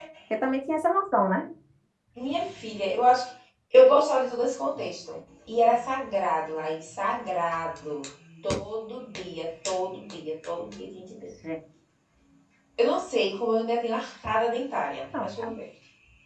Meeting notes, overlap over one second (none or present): none